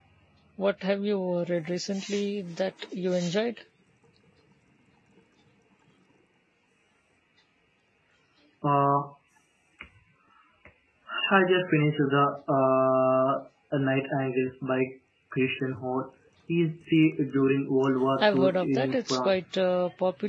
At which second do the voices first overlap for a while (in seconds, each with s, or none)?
18.2 s